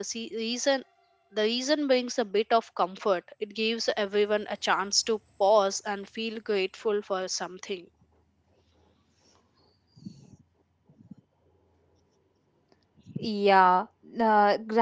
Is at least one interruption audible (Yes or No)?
No